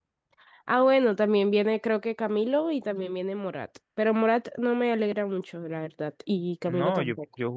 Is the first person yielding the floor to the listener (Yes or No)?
Yes